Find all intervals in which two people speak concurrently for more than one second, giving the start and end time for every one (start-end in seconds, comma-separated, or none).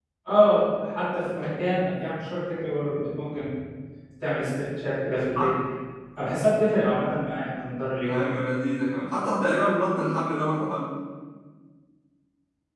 none